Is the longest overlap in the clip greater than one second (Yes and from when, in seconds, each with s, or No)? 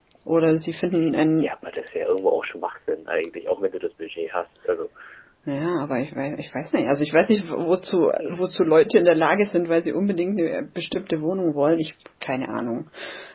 No